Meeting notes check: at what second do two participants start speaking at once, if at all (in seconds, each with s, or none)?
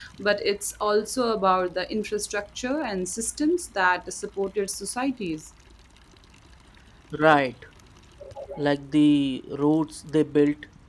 none